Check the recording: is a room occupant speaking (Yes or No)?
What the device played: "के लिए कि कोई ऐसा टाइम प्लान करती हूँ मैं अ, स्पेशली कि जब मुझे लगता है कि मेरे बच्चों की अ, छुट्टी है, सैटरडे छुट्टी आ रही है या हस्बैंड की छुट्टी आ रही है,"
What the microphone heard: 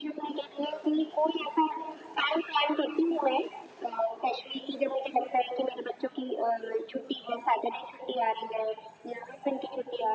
No